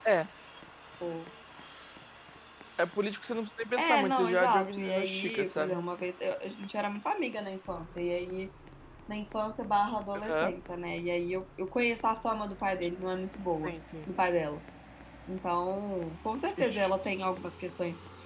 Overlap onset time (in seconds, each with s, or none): 3.8 s